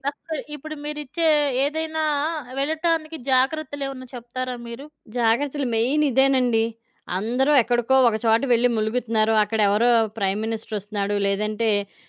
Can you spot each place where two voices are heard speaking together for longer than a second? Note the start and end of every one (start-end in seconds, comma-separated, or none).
none